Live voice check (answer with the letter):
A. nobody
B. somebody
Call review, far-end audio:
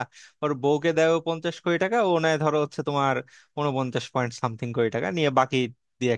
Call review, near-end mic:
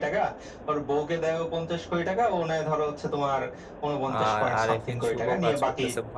B